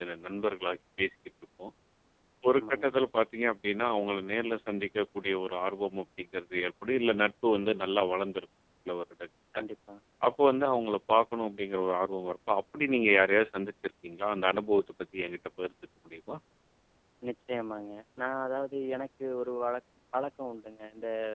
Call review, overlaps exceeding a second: none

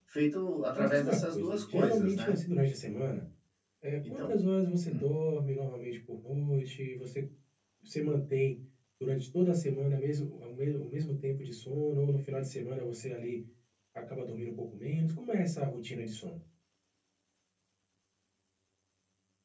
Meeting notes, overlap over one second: present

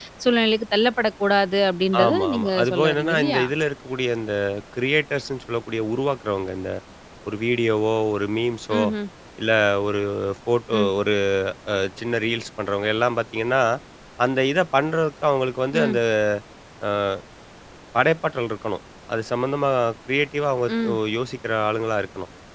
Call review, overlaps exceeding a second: present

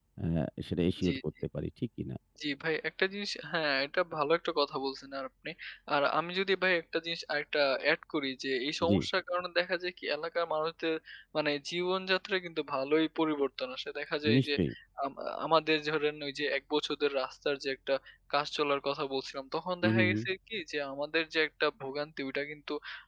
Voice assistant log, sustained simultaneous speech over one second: none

